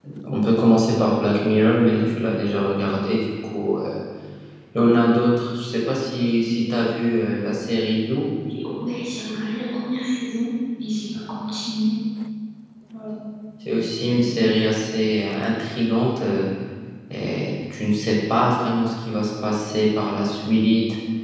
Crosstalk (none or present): none